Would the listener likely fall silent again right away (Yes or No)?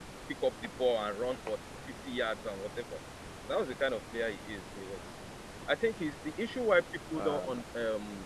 Yes